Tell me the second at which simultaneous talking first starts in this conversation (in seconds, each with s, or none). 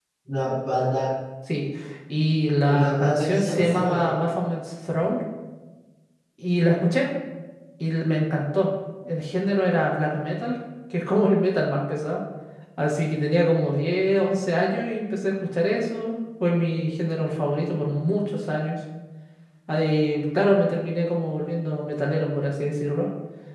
2.7 s